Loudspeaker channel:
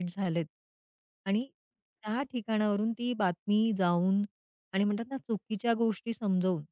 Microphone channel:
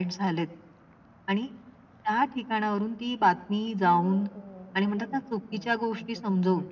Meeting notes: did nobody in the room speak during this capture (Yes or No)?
No